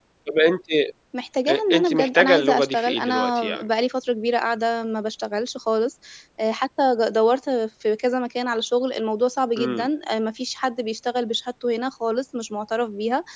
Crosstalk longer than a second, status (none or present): present